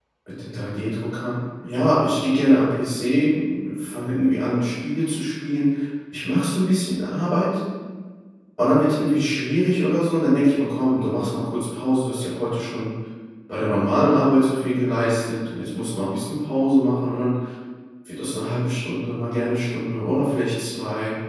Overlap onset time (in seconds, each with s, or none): none